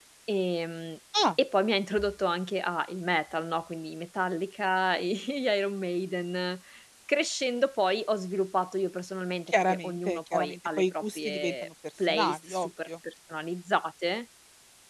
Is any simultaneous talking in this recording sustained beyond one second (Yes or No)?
Yes